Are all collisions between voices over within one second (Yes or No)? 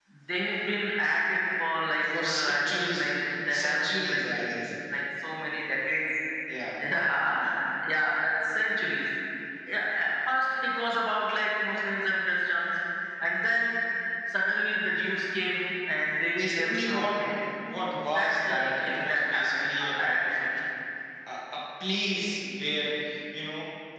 No